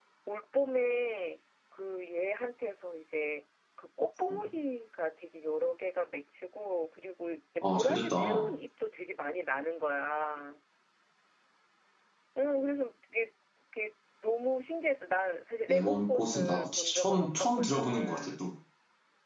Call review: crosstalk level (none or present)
present